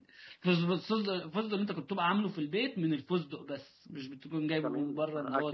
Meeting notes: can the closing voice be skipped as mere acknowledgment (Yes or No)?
No